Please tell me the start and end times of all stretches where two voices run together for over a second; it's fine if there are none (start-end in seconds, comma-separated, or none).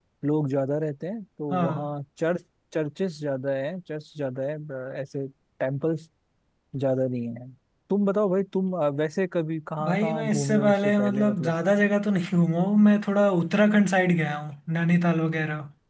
9.8-11.5